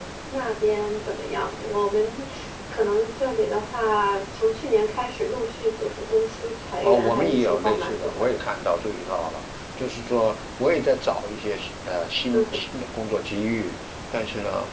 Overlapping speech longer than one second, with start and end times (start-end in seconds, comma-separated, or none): 6.8-8.4